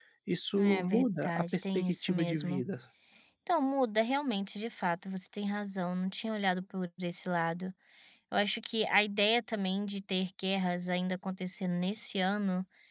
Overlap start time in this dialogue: 0.6 s

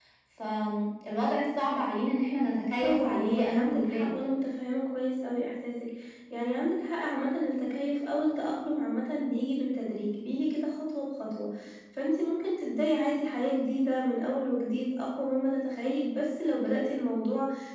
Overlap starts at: 2.8 s

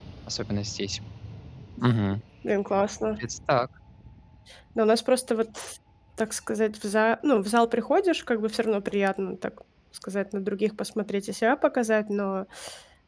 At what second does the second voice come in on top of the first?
none

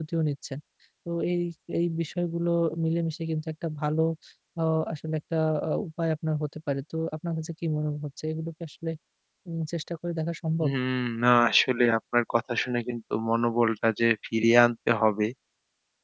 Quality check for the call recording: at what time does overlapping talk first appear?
none

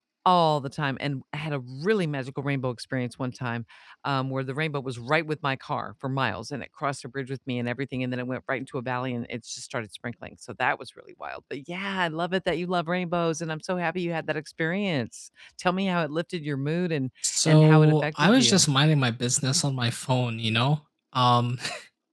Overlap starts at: 17.2 s

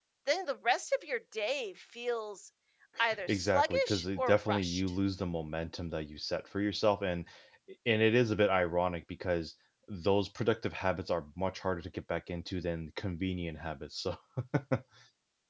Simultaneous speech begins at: 3.3 s

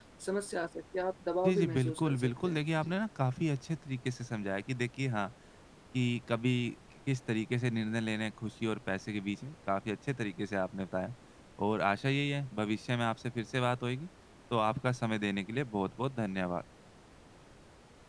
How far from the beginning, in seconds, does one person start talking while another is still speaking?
1.4 s

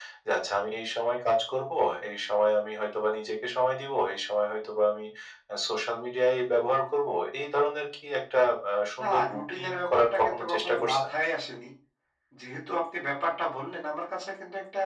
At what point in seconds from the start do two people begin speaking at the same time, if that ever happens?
9.0 s

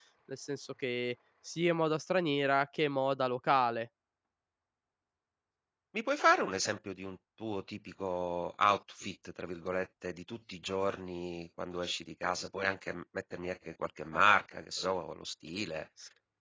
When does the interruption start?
none

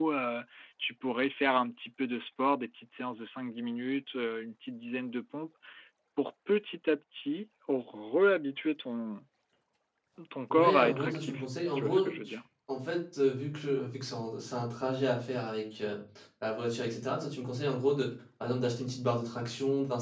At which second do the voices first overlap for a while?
10.5 s

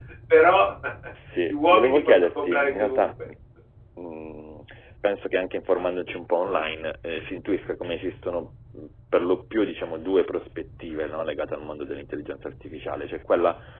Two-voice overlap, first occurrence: 1.5 s

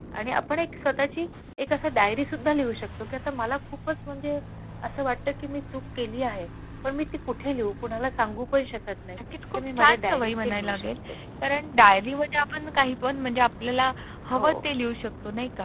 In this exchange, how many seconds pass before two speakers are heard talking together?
9.6 s

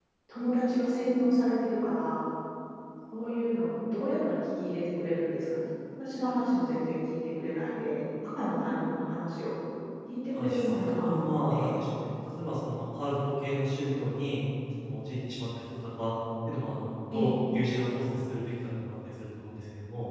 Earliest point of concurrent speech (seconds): 10.3 s

